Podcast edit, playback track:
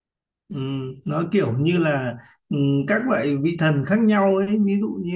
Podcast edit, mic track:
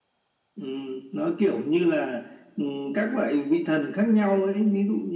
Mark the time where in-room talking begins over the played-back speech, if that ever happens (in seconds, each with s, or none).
none